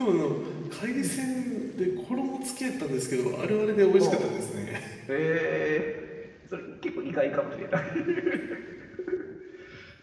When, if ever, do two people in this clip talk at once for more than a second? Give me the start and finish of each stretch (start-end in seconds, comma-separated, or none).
none